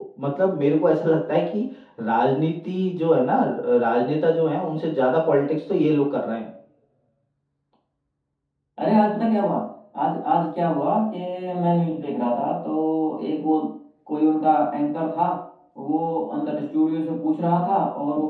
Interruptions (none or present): none